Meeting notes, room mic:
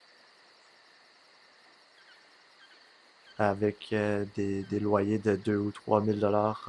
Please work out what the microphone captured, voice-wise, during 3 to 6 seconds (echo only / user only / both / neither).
user only